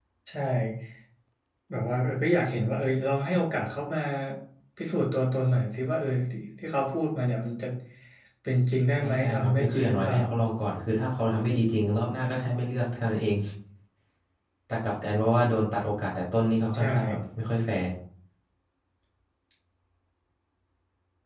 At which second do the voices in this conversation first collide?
8.9 s

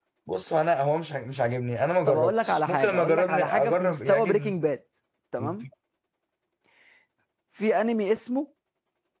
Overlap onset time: 2.1 s

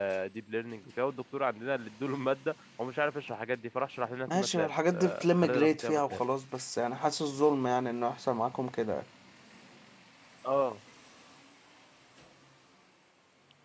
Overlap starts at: 4.3 s

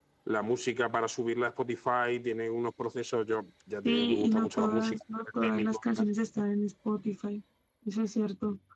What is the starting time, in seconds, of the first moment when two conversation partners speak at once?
3.9 s

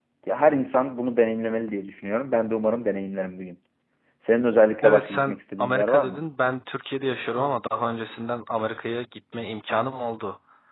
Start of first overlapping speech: 4.8 s

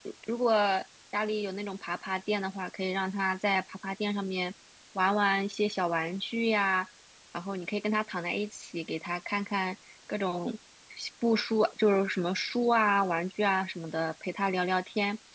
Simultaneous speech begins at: none

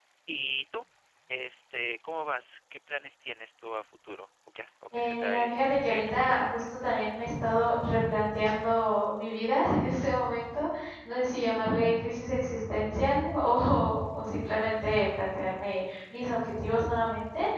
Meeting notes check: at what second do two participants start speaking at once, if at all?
4.9 s

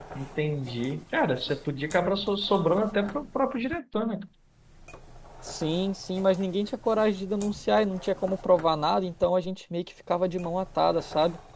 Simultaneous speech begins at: none

